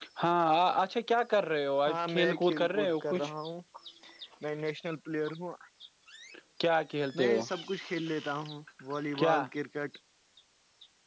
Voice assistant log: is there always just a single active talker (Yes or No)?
No